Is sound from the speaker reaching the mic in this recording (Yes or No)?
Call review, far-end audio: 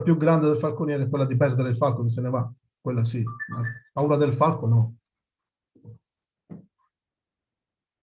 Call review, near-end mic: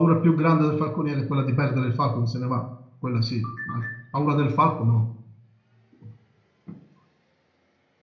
Yes